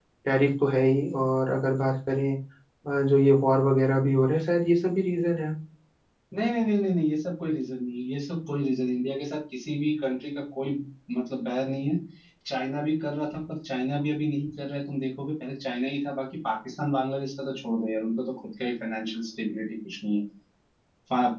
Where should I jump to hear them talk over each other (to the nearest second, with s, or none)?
none